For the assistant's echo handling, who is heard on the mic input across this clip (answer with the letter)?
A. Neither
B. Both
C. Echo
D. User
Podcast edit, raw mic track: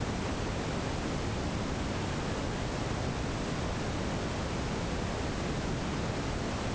A